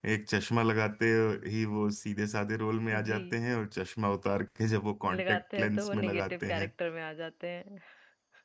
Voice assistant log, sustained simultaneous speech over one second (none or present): present